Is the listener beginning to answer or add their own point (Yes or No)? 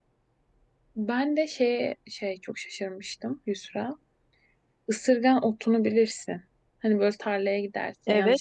Yes